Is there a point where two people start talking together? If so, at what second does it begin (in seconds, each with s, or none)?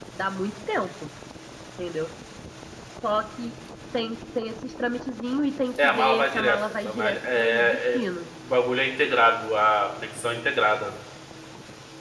5.8 s